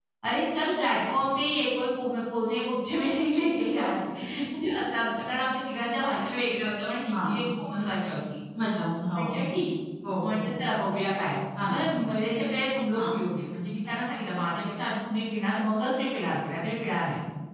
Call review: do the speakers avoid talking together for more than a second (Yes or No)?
Yes